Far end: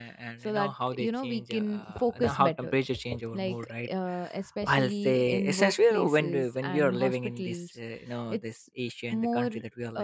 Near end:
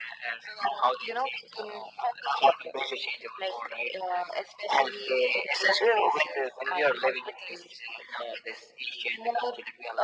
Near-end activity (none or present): none